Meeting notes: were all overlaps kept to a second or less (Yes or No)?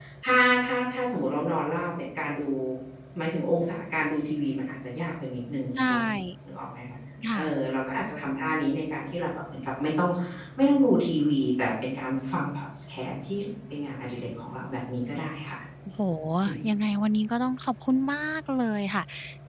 Yes